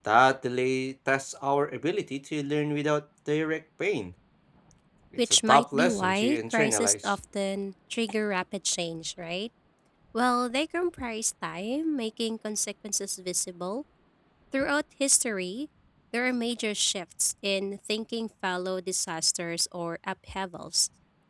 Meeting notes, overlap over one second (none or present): present